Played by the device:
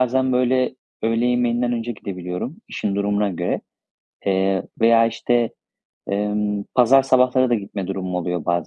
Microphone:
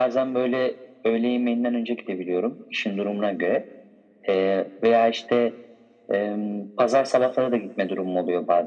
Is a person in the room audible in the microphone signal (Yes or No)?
No